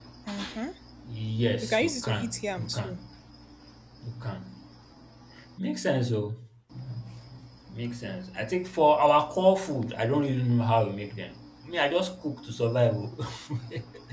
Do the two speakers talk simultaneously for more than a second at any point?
Yes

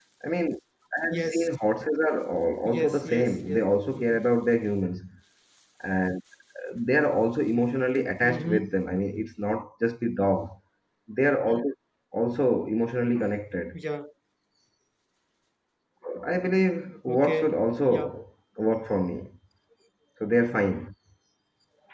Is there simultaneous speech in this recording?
Yes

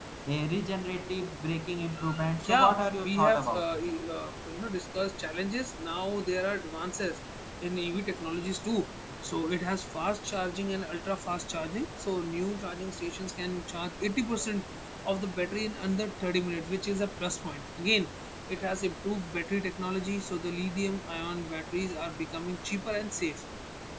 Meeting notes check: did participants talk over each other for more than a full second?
Yes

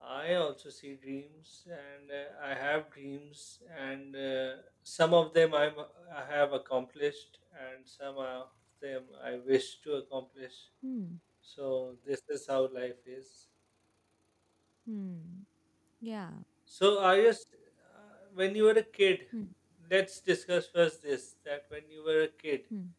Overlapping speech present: No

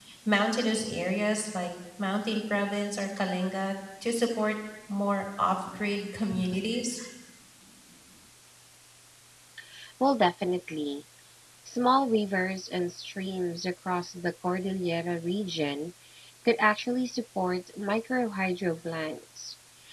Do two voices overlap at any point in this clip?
No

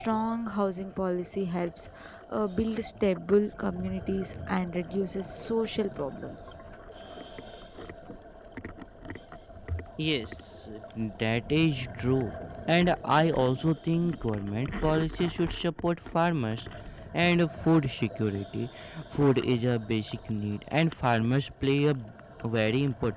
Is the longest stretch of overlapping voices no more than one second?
Yes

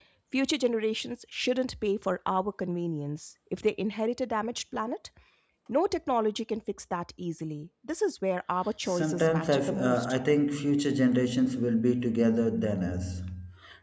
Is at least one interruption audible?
Yes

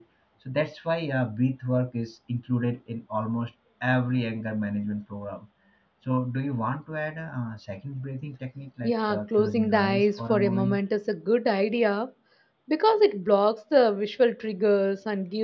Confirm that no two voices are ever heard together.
No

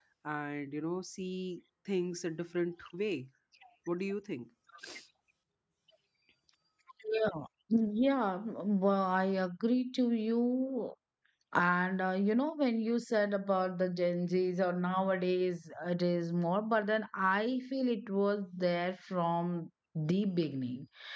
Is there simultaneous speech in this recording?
No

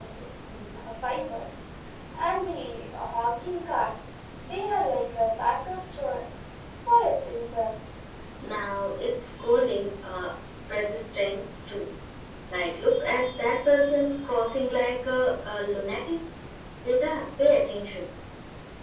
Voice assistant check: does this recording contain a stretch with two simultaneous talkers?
No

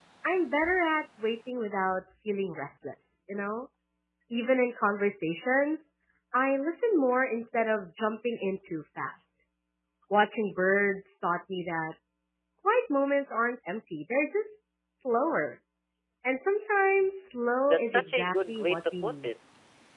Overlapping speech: Yes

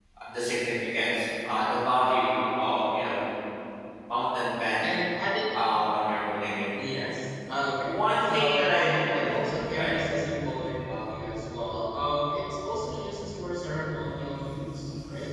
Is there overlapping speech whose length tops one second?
Yes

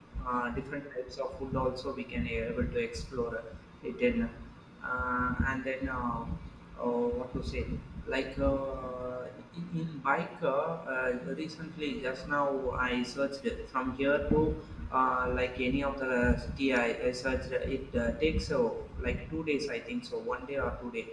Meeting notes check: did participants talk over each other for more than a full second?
No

